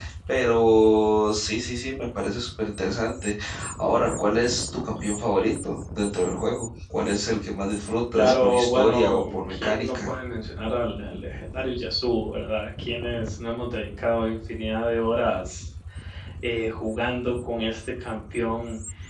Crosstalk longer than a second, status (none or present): present